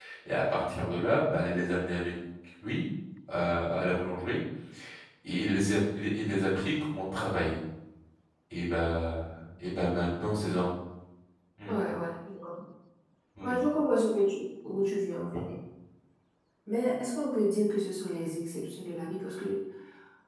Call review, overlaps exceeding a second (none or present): none